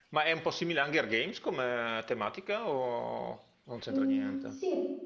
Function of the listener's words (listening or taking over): taking over